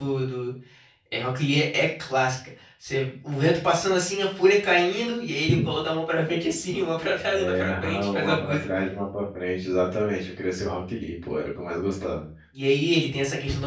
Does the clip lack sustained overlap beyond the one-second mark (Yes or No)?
No